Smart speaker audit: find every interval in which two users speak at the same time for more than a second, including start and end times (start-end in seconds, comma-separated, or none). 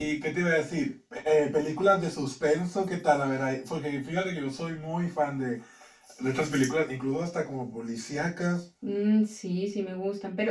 none